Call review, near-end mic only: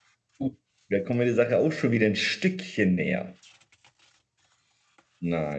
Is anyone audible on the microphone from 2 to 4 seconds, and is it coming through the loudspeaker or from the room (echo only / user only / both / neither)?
user only